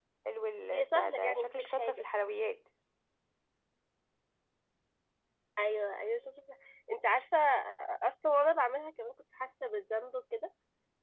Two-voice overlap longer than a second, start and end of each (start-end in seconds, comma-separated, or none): 0.7-2.0